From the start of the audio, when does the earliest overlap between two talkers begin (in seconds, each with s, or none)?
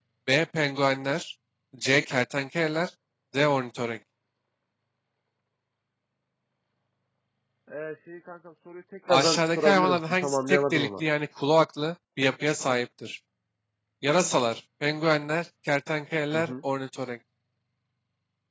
9.1 s